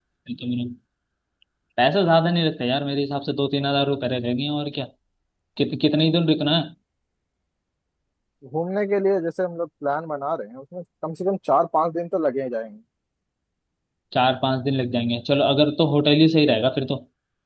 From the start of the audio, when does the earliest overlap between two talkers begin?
none

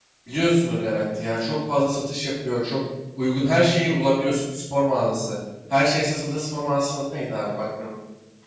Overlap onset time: none

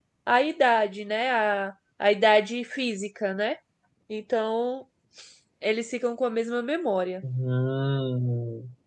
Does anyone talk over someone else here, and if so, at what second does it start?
none

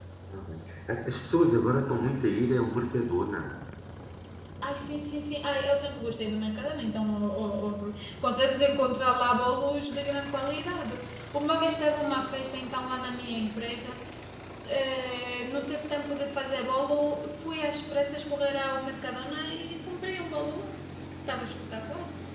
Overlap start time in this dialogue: none

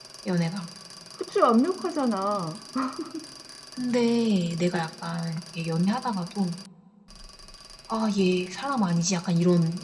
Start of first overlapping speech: none

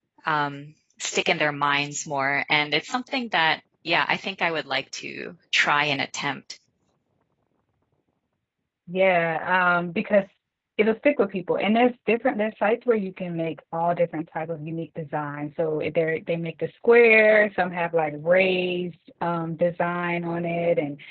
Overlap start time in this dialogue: none

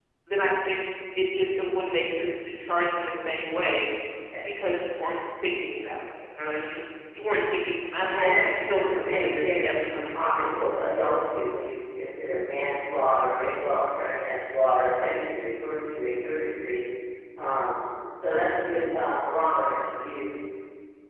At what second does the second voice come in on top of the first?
8 s

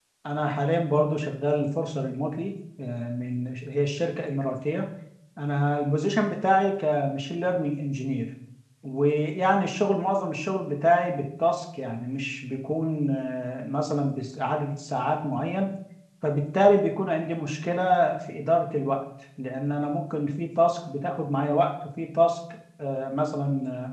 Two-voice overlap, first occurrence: none

